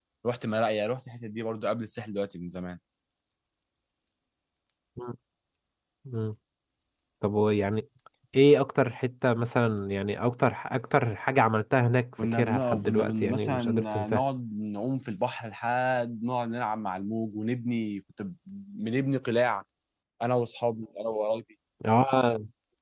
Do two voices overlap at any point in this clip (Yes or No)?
Yes